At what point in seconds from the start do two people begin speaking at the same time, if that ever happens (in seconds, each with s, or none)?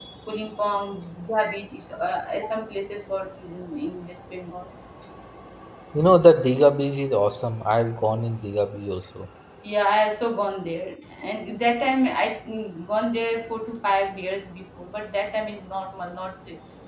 none